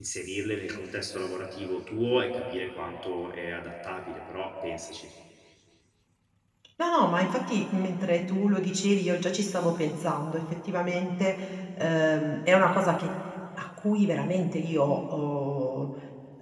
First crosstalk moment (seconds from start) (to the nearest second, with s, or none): none